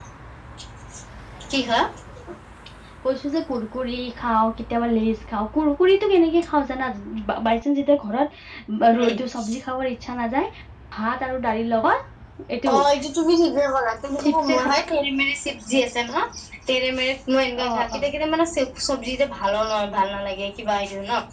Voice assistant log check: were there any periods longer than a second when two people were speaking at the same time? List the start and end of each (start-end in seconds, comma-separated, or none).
none